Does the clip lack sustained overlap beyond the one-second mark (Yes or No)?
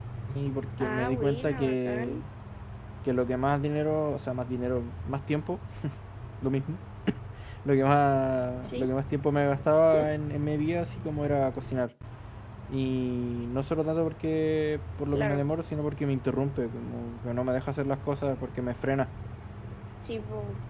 No